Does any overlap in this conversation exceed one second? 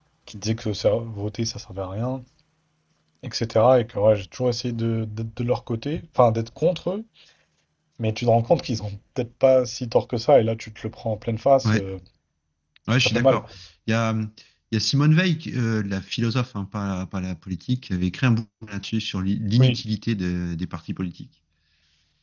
No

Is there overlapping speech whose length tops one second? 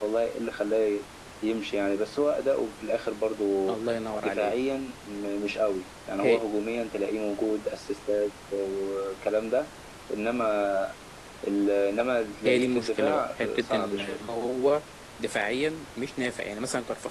Yes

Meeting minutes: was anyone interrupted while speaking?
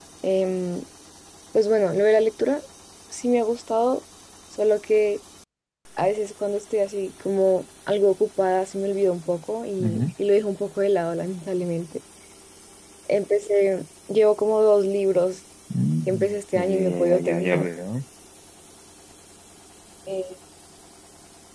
Yes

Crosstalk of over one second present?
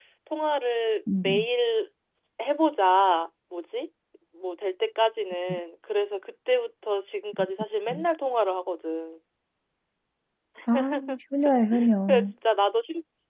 No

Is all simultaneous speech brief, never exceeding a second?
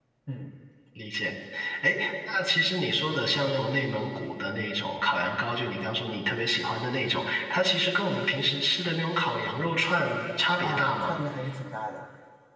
Yes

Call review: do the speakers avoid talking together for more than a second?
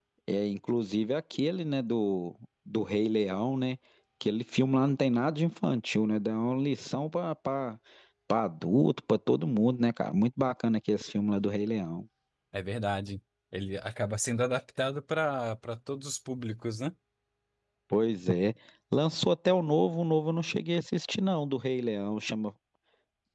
Yes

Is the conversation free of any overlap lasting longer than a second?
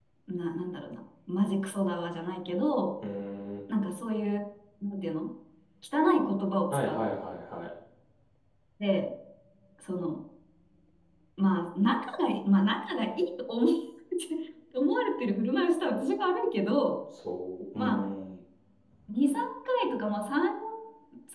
Yes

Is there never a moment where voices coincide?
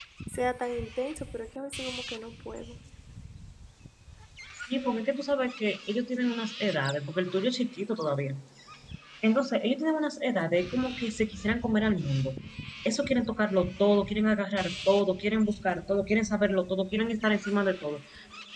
Yes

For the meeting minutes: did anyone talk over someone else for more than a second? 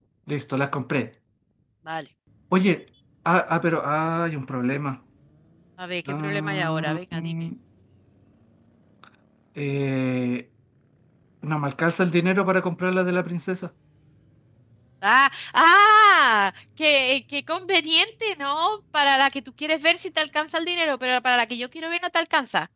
Yes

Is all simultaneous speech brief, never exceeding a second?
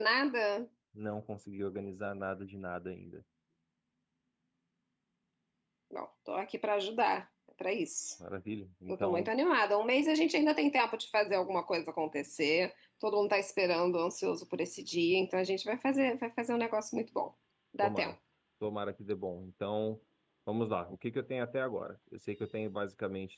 Yes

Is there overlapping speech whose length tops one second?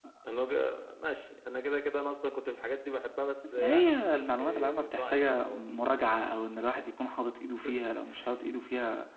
Yes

